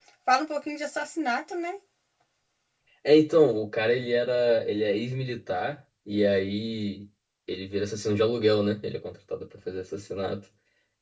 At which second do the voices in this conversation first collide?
none

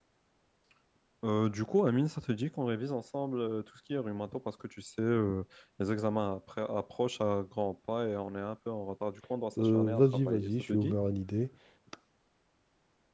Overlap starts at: 10 s

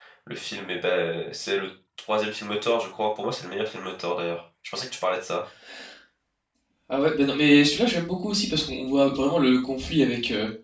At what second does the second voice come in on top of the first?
none

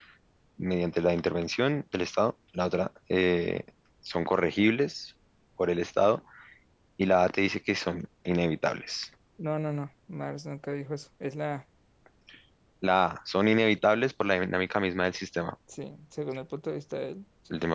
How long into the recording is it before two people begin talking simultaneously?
none

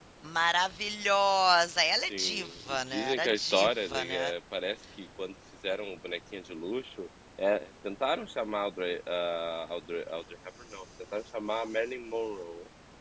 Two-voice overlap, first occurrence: 2 s

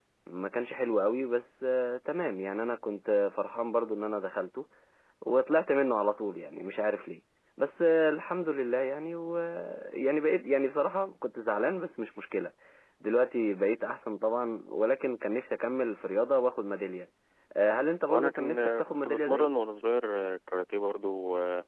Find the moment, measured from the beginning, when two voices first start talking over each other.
18 s

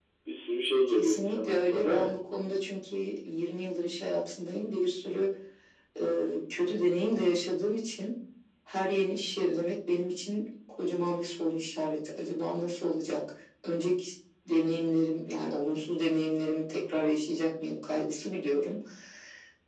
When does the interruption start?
1 s

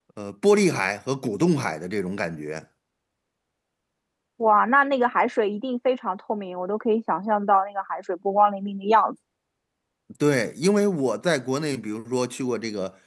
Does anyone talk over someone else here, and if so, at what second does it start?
none

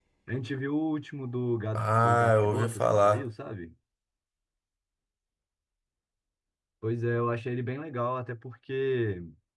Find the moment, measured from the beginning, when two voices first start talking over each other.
2 s

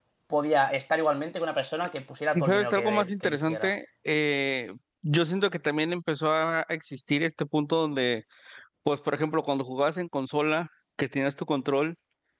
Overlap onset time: 2 s

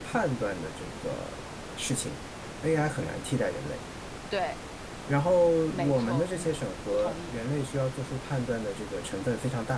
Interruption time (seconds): 6 s

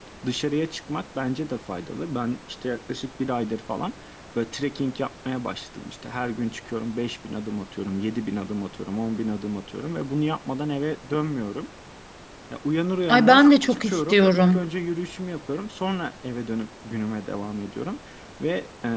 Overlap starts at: 13 s

